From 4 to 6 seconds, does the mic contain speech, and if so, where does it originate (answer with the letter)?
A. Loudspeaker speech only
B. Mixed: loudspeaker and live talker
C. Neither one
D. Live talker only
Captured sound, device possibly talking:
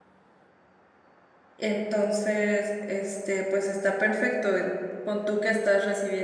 D